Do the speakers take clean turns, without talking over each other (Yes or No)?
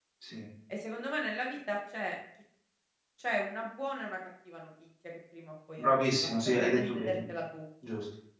No